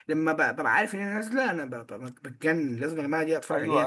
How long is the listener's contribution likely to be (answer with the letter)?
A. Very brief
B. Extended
B